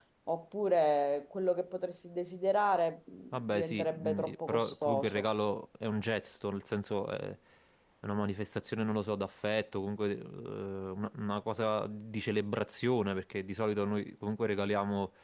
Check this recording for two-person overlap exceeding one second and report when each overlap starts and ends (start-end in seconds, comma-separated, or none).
3.3-5.2